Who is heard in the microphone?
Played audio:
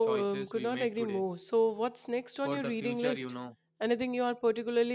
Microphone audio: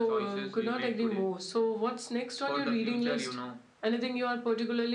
echo only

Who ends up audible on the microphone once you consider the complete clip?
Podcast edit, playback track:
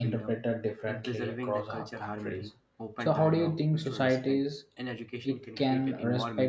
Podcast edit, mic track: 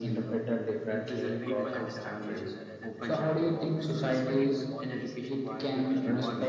both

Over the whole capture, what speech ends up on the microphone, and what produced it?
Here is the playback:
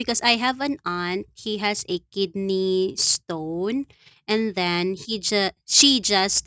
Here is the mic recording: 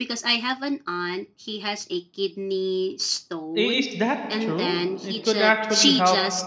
both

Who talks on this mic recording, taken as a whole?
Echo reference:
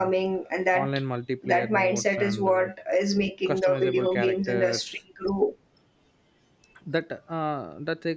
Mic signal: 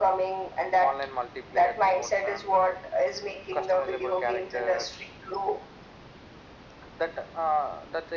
echo only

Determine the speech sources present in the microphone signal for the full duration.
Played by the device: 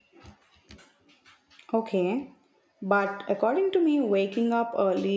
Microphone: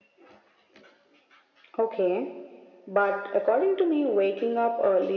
echo only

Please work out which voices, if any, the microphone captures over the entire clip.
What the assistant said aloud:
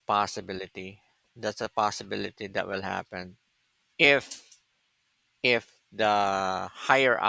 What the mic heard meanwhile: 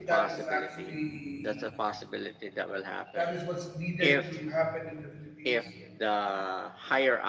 both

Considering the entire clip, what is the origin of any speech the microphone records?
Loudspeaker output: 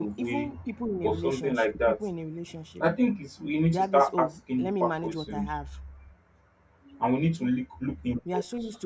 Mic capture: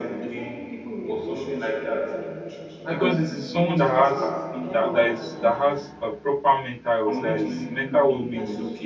both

